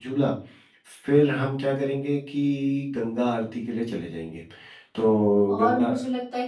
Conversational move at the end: taking over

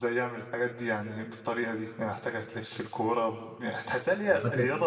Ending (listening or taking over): listening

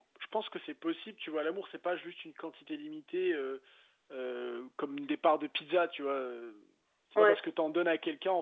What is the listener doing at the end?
listening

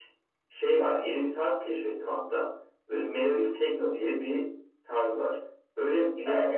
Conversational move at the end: listening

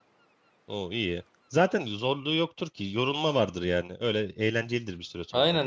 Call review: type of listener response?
taking over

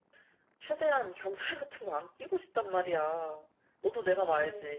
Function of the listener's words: taking over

